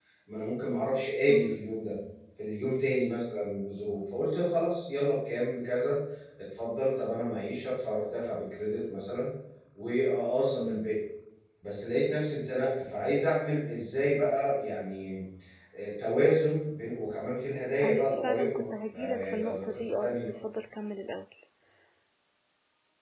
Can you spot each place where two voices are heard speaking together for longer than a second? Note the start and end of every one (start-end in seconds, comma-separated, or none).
17.8-20.3